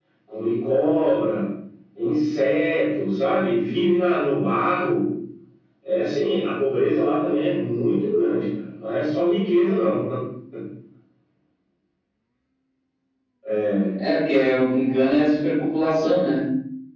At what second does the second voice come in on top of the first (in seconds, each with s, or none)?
none